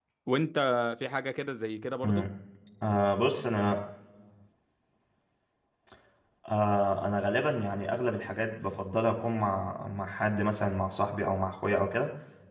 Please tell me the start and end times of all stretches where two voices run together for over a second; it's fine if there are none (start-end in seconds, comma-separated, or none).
none